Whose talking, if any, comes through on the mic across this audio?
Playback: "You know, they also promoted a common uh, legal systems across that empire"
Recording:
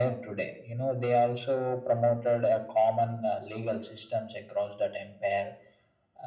echo only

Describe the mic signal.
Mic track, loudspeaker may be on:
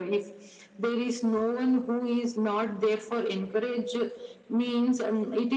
echo only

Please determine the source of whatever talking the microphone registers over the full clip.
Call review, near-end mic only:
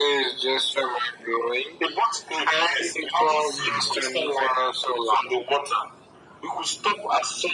both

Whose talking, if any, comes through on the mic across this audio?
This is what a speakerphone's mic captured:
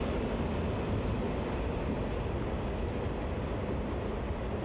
neither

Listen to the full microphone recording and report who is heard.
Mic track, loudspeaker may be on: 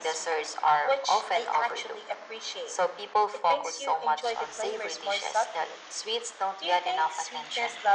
echo only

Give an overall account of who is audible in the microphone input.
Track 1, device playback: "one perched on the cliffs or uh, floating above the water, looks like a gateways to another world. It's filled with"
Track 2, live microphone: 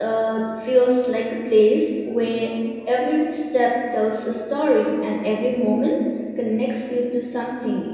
user only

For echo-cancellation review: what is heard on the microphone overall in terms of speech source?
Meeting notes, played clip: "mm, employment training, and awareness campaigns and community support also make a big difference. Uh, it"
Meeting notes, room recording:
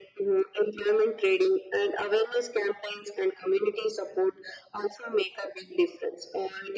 echo only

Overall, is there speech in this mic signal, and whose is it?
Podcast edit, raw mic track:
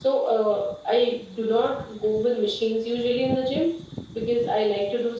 echo only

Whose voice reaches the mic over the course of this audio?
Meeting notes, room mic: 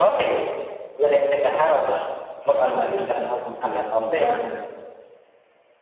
both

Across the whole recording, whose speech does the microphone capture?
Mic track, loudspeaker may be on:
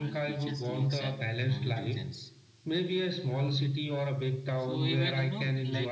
both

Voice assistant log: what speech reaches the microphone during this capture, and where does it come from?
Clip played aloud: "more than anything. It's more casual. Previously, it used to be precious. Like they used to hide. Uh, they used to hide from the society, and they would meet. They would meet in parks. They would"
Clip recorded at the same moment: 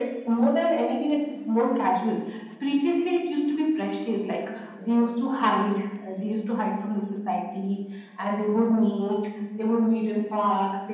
echo only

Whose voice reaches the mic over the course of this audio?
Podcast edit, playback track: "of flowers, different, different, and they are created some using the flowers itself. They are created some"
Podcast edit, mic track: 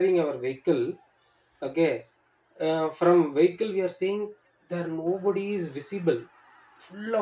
user only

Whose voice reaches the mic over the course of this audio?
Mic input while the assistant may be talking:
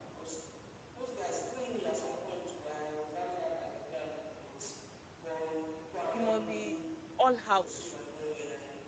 both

